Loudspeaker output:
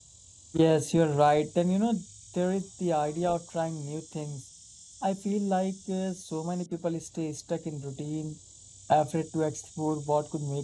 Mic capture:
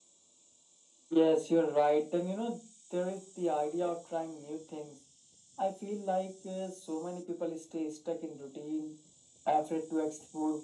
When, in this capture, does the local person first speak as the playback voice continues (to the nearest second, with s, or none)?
none